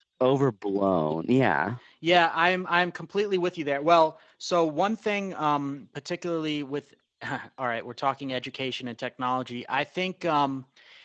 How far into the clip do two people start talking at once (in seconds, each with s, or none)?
none